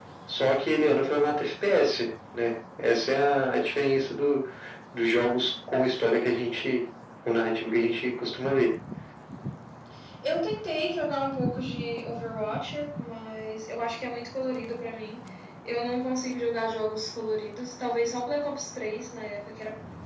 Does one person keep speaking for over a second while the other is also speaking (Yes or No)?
No